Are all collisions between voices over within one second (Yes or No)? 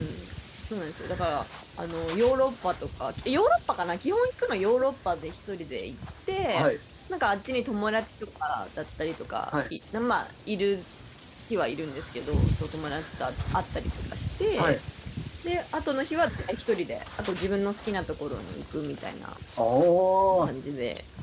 Yes